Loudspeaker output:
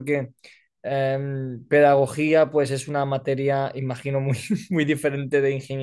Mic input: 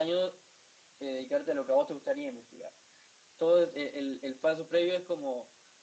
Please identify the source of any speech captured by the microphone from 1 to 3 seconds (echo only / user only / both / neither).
user only